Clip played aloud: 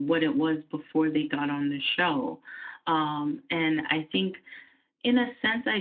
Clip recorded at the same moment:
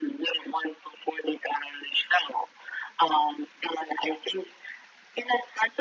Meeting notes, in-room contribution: none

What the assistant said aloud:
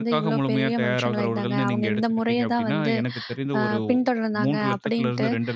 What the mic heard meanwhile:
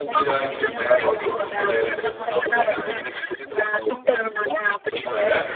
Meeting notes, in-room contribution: present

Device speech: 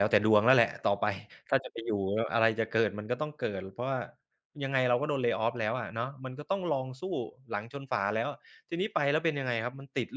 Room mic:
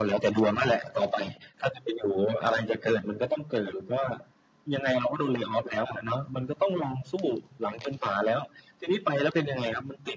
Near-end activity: none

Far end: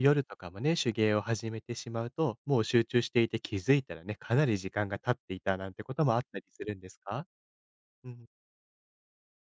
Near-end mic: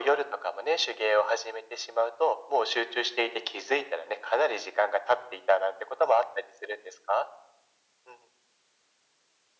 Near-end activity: none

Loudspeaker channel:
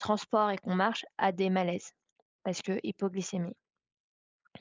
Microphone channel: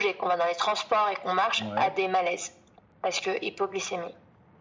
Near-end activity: present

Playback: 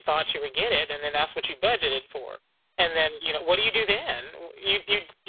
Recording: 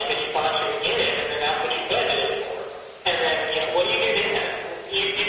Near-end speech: none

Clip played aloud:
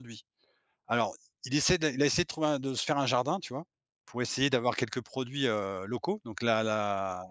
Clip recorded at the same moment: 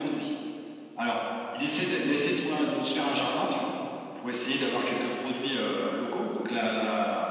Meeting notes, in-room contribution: none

